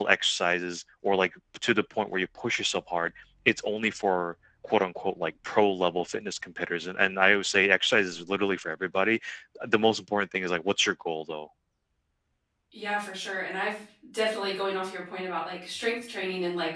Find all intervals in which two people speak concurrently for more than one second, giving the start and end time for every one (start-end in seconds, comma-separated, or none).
none